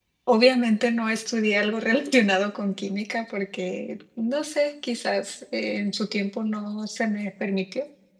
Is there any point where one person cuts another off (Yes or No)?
No